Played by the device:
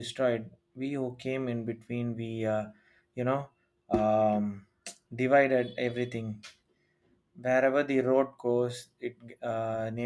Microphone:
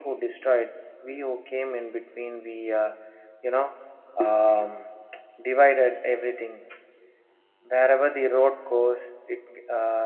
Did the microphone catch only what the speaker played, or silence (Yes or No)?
Yes